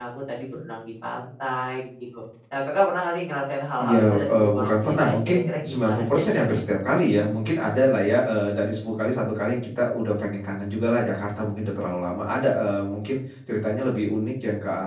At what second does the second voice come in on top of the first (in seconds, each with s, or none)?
3.8 s